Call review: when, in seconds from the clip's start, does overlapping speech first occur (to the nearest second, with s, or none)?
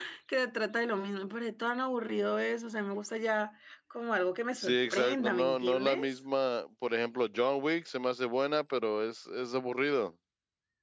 5 s